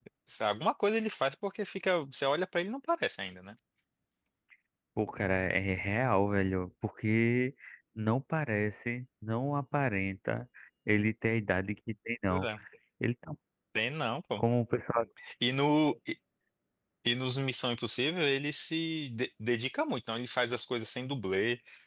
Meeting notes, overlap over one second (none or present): none